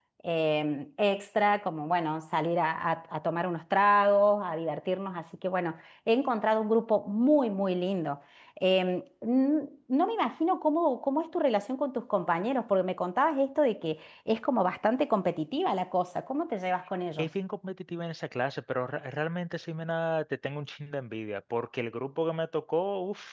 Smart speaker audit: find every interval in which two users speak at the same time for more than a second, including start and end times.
none

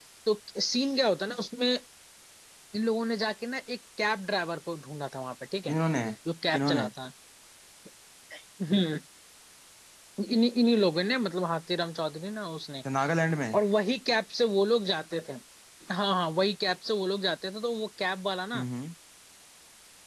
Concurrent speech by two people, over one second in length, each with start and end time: none

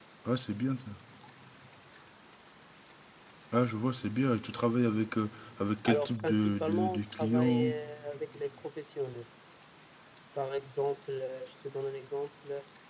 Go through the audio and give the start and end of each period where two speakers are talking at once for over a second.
5.9-7.7

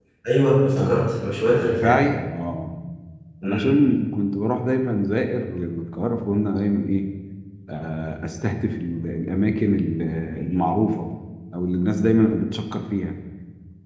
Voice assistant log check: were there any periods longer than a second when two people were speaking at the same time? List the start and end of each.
none

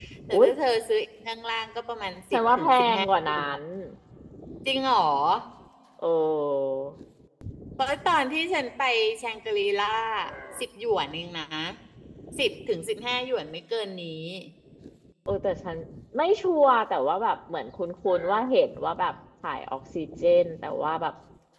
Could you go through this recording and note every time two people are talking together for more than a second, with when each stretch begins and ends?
2.3-3.6

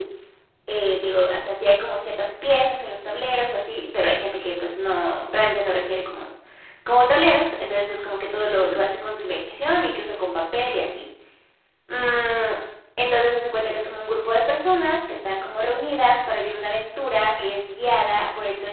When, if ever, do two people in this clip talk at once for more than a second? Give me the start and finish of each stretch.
none

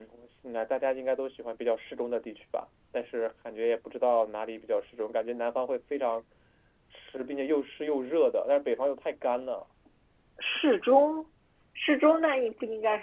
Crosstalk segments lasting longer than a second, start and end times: none

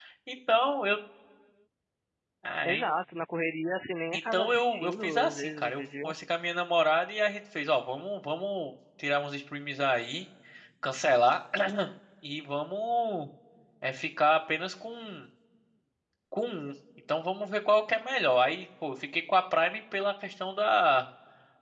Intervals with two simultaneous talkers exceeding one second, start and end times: 4.1-6.1

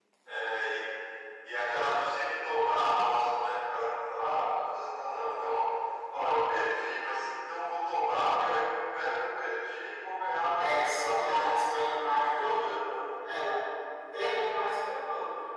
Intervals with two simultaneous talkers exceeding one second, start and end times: 10.6-13.1

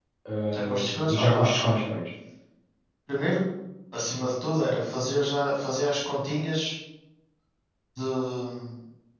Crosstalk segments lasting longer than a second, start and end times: 0.6-1.8

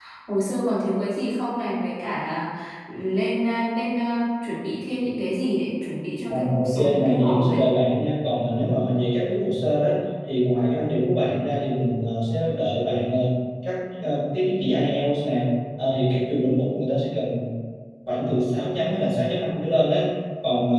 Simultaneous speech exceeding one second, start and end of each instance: 6.3-7.8

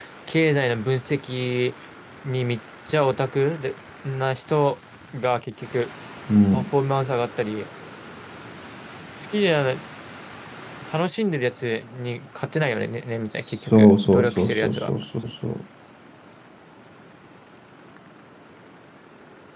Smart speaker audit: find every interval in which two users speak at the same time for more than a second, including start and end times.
13.7-14.9

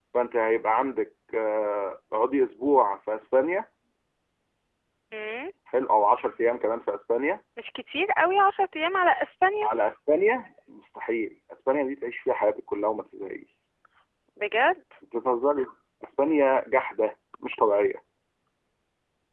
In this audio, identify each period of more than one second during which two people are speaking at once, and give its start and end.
none

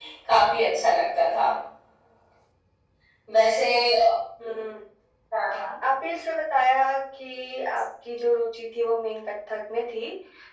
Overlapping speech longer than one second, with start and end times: none

